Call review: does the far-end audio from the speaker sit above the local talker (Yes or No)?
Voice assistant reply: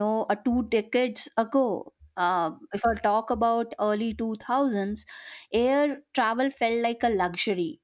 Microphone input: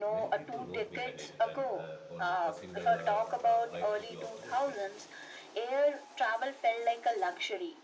Yes